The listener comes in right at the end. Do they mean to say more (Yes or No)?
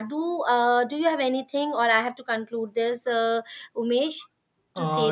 Yes